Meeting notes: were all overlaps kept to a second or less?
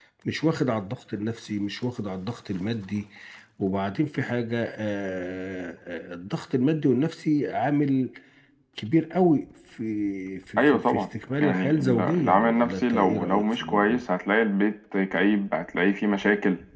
No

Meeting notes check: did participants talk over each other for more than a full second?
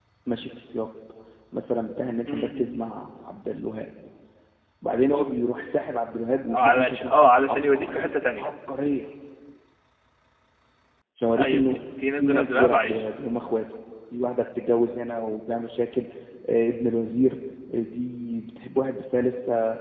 Yes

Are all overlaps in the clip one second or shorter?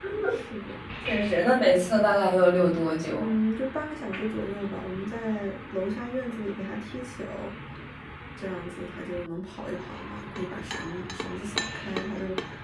Yes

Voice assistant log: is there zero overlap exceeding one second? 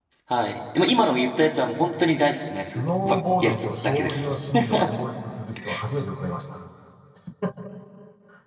No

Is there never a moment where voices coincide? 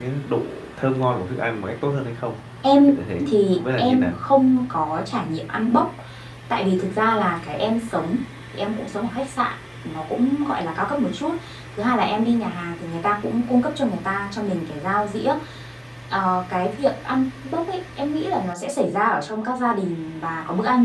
No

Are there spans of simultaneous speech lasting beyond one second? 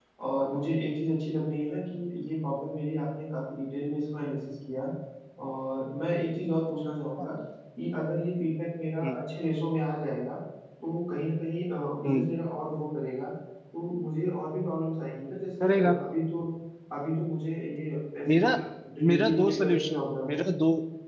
Yes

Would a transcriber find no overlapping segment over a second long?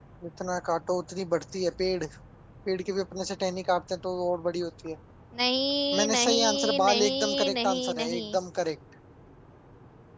No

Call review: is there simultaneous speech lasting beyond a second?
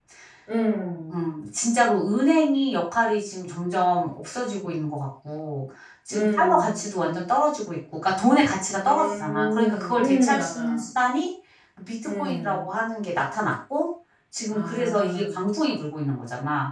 Yes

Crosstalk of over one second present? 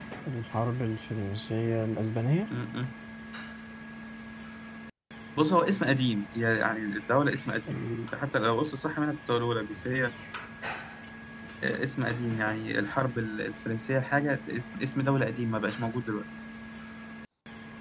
No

